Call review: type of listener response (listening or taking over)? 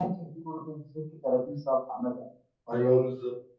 taking over